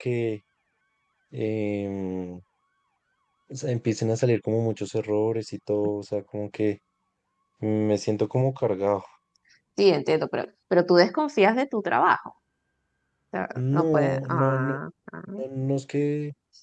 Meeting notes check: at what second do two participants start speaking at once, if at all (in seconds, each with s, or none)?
13.6 s